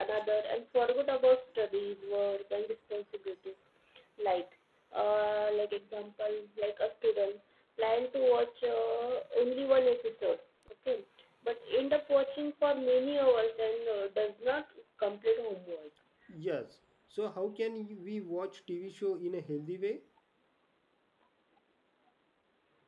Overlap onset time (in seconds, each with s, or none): none